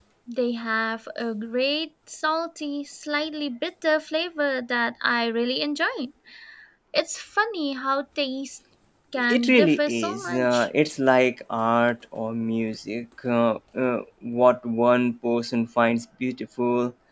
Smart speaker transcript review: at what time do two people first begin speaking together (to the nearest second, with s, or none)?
9 s